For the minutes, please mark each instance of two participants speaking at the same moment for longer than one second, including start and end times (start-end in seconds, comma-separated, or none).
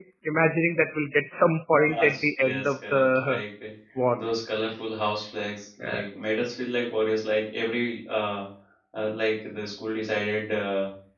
1.9-3.4